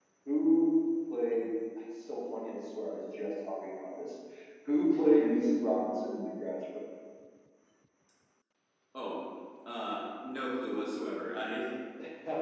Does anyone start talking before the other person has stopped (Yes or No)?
No